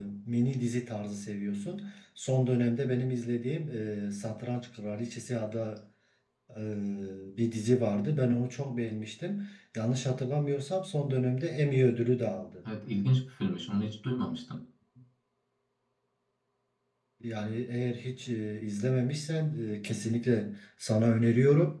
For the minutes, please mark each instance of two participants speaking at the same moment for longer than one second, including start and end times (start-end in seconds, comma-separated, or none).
none